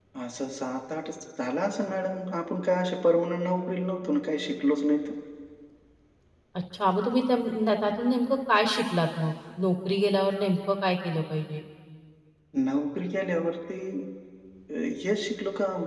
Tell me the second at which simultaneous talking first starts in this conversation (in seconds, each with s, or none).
none